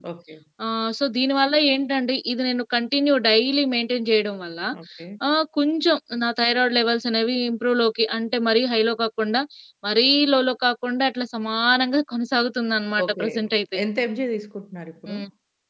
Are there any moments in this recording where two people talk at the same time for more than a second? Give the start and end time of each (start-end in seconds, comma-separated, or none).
none